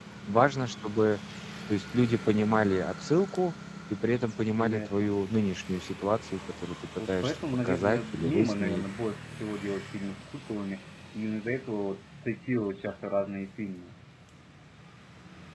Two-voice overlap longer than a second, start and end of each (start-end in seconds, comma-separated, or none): 7.0-8.8